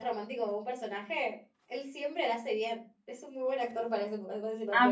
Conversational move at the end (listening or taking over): taking over